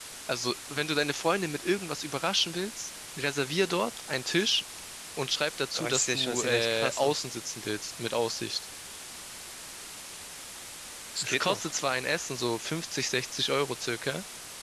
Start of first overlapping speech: 5.8 s

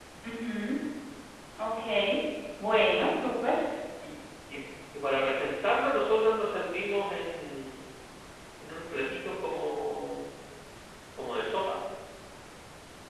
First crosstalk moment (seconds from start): none

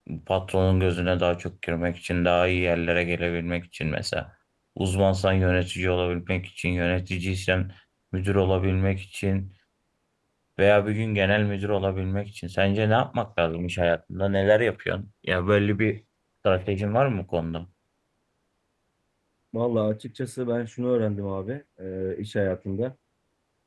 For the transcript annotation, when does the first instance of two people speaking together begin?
none

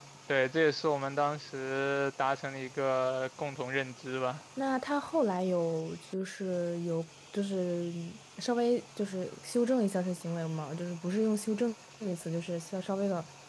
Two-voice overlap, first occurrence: none

